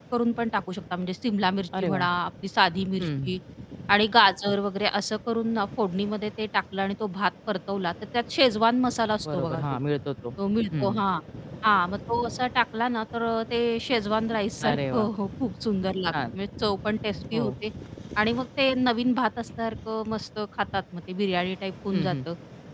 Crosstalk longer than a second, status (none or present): none